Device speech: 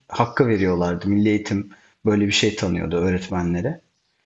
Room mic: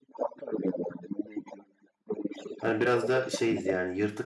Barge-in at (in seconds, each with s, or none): 2.6 s